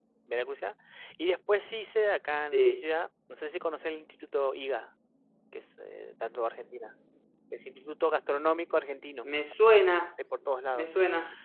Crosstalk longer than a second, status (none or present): none